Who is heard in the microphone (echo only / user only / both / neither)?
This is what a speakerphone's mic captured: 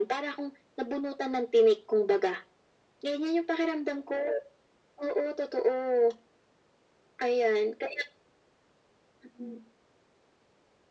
echo only